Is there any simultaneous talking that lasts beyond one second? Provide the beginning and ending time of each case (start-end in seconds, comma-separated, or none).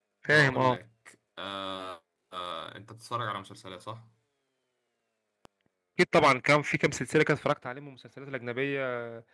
none